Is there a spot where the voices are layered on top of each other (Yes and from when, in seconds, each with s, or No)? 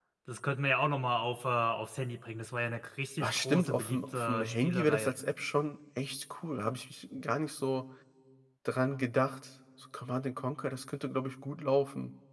Yes, from 3.2 s